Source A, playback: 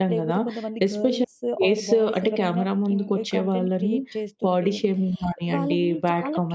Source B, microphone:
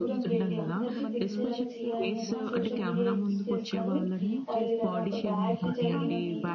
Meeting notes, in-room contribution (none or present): present